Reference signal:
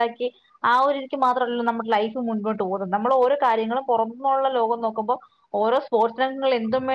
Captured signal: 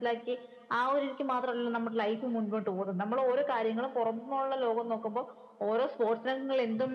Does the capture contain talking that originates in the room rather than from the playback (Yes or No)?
No